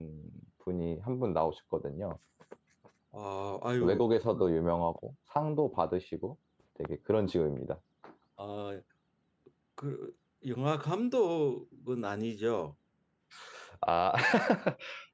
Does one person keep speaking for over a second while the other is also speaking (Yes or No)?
No